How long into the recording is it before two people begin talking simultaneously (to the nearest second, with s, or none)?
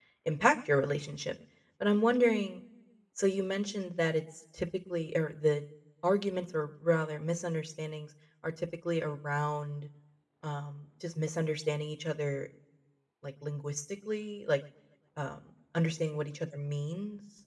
none